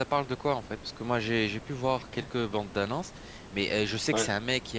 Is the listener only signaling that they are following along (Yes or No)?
Yes